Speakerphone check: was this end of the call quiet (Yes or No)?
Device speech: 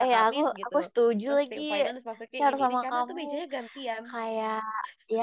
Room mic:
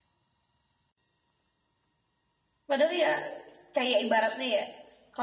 No